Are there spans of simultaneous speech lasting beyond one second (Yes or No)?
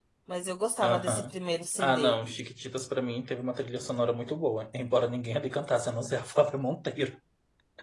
No